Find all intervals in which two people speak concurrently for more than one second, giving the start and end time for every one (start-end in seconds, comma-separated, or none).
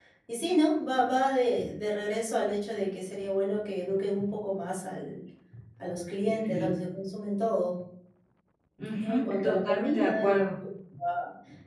8.9-10.5